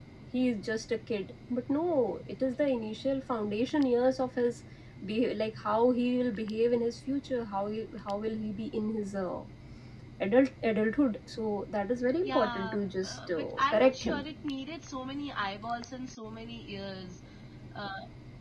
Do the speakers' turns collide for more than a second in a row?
Yes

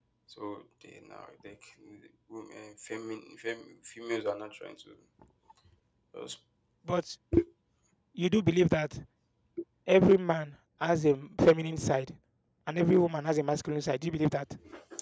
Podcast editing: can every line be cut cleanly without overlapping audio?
Yes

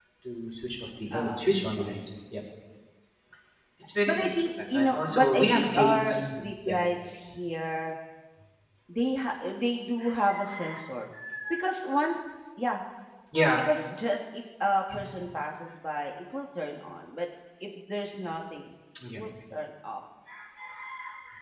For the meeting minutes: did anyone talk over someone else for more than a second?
Yes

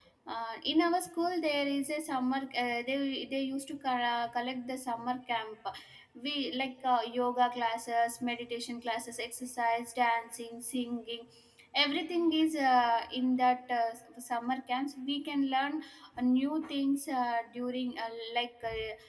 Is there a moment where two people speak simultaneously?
No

